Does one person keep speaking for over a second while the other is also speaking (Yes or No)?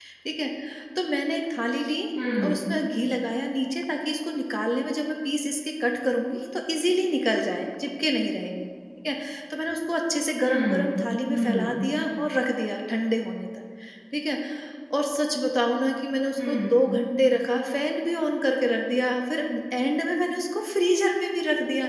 No